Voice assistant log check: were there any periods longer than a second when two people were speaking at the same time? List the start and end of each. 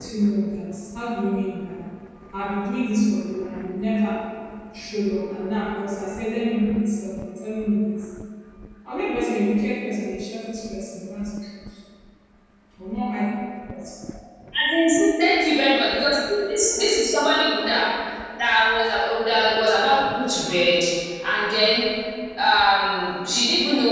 none

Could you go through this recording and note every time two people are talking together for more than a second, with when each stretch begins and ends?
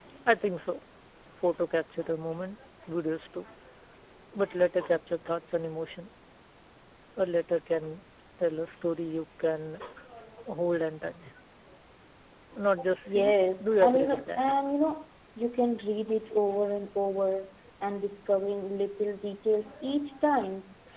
13.1-14.4

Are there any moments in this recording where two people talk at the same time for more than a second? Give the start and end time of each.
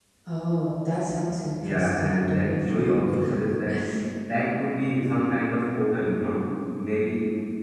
1.6-3.1

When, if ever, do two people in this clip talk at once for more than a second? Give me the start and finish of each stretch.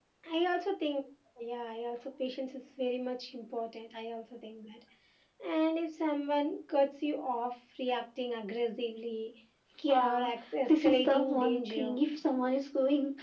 10.7-12.0

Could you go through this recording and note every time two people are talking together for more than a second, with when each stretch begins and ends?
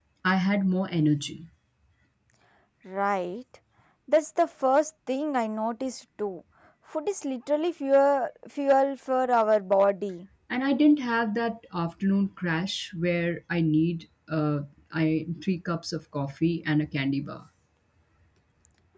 none

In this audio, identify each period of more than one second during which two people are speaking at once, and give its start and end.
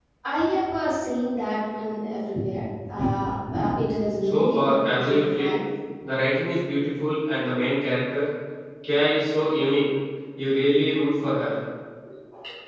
4.2-5.5

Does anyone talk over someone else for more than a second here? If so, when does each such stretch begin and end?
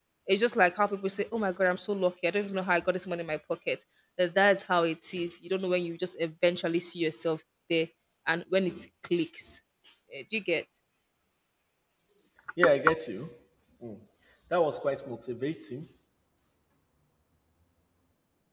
none

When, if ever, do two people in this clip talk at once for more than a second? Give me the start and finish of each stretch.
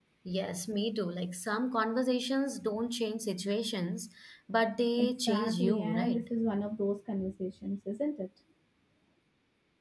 5.0-6.3

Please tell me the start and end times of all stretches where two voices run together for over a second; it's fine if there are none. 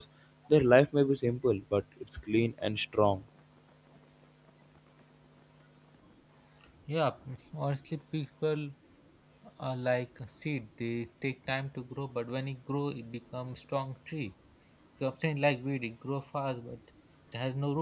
none

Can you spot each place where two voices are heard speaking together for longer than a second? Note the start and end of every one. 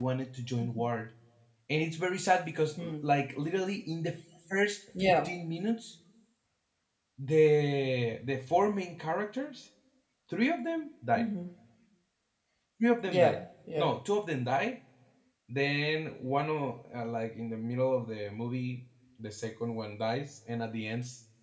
none

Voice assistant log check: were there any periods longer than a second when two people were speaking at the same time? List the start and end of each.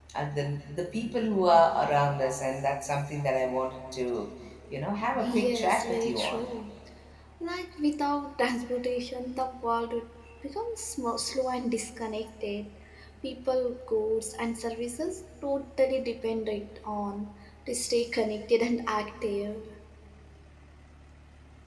5.2-6.5

